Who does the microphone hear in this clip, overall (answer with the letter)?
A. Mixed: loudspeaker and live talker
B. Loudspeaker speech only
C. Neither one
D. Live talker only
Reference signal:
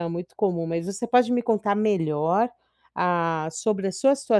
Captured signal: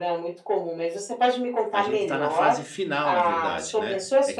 A